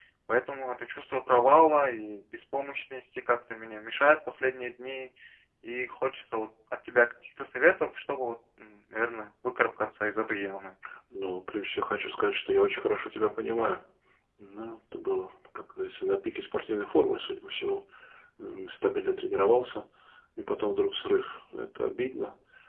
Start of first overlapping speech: none

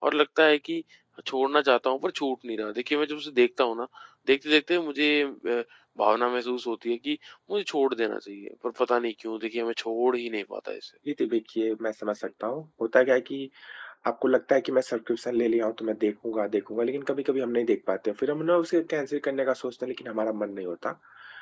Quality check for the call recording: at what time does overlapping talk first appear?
none

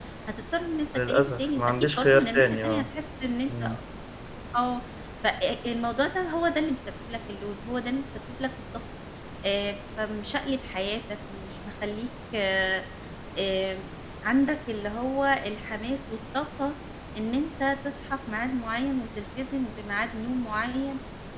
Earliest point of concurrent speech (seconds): 1.1 s

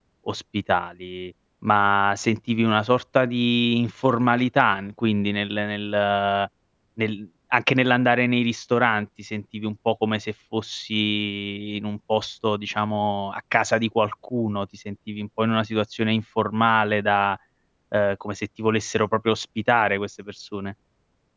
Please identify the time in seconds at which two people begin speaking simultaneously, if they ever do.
none

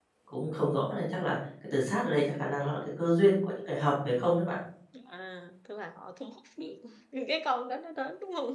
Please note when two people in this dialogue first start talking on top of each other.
none

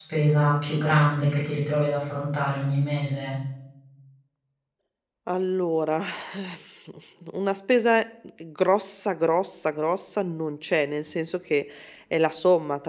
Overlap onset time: none

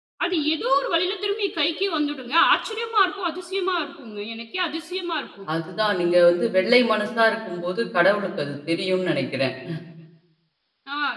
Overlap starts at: none

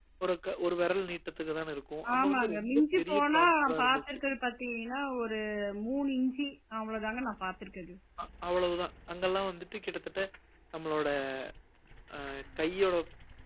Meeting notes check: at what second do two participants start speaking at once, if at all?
2.0 s

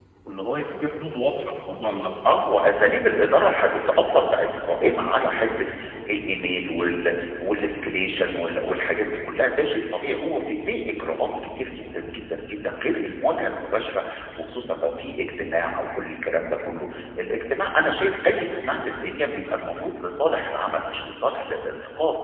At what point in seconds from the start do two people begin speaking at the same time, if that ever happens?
none

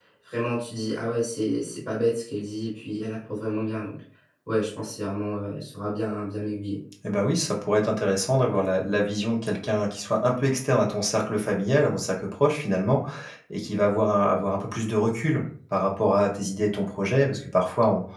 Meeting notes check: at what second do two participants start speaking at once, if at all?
none

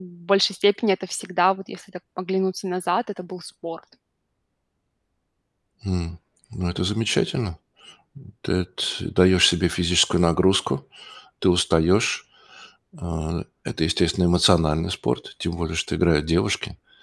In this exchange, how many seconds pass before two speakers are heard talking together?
none

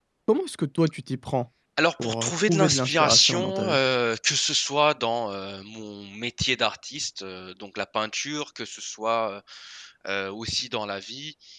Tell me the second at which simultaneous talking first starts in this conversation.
2.0 s

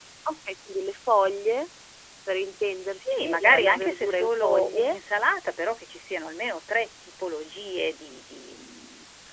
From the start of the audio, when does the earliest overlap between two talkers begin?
2.9 s

